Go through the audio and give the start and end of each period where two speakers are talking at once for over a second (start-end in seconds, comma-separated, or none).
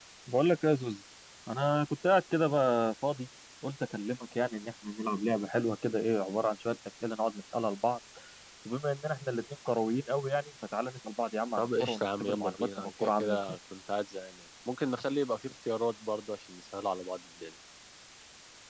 11.6-13.4